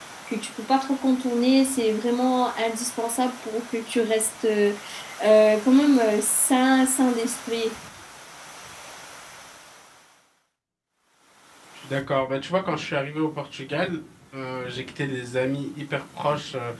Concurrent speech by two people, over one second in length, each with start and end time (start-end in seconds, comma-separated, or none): none